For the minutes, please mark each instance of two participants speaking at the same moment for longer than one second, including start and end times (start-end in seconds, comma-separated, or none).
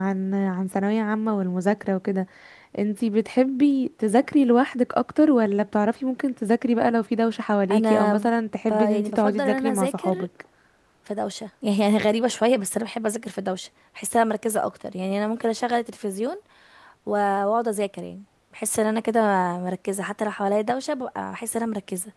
8.7-10.3